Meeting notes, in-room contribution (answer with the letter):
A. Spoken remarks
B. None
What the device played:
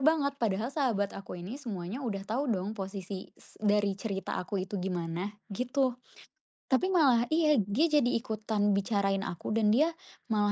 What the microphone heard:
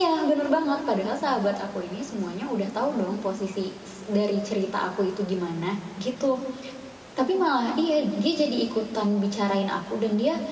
B